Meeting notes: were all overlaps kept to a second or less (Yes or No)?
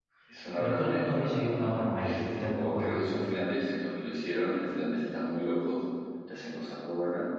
No